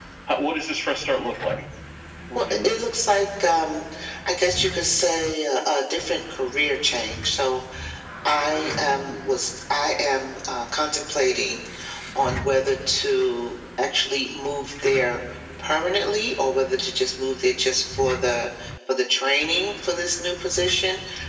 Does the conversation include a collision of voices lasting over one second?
No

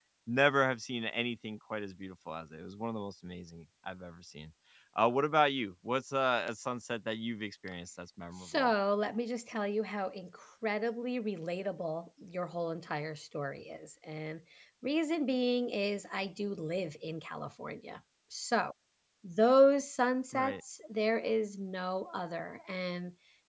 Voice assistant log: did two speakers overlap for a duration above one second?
No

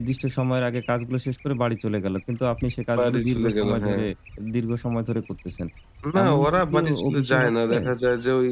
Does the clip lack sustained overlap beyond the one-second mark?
No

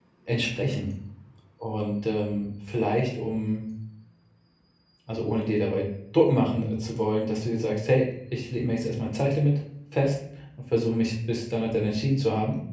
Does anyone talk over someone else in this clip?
No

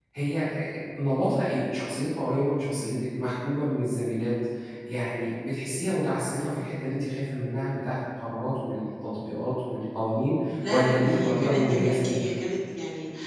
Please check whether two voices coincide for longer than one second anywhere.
Yes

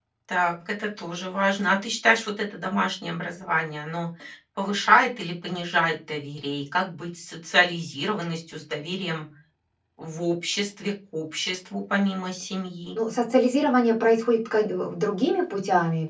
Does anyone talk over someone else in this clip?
No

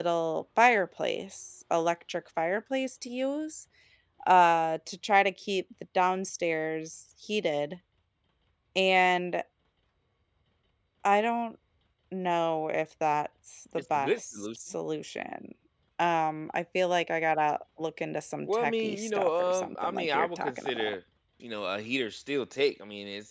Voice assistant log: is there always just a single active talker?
No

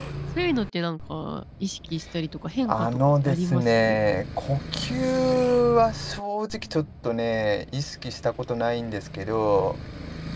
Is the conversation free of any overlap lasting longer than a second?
No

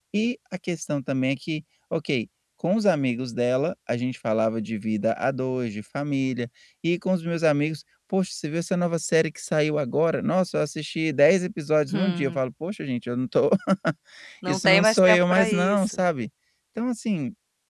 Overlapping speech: Yes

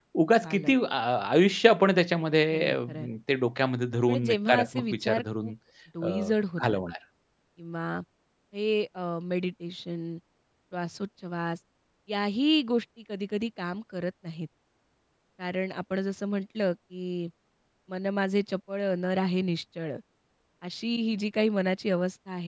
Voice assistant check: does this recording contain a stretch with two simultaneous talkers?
Yes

